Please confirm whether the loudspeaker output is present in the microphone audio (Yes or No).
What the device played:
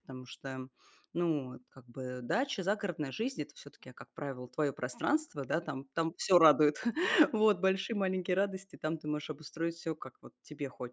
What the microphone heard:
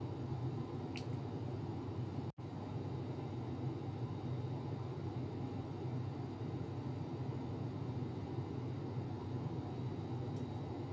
No